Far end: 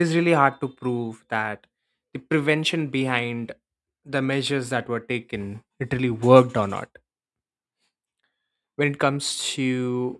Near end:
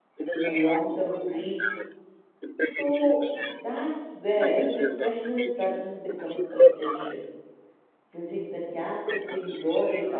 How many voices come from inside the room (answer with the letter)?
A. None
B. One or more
B